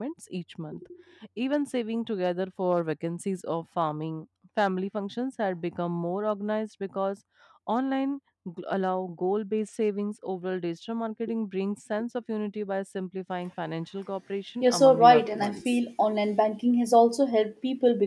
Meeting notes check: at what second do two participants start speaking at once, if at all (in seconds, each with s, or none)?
14.6 s